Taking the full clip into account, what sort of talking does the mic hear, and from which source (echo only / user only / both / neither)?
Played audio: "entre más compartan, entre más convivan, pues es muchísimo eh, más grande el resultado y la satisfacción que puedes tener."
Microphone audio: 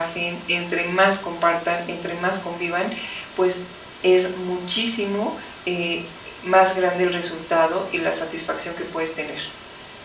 echo only